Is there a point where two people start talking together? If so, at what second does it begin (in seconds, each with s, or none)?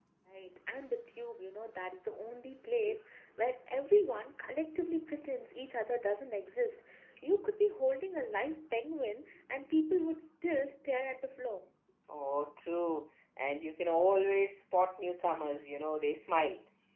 none